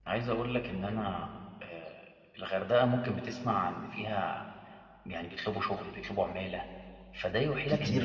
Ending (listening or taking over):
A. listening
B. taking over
A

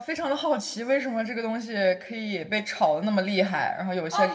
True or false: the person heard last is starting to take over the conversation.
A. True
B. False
A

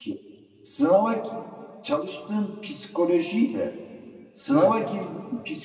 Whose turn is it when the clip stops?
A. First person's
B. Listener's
A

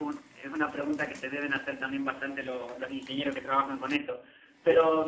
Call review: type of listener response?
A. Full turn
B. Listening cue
B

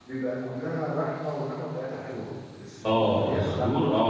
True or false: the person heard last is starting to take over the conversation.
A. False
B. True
B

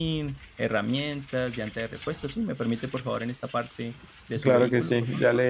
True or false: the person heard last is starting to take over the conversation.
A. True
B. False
A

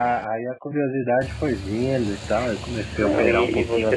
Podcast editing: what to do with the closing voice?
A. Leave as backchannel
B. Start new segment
B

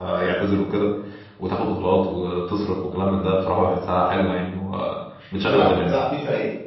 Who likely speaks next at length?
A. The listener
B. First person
A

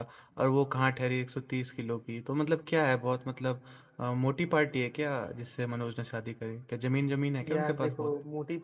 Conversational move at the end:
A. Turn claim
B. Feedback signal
A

